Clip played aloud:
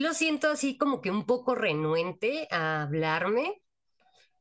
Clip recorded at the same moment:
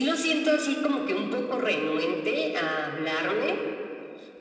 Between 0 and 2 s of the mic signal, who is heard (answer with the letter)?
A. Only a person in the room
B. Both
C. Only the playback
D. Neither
C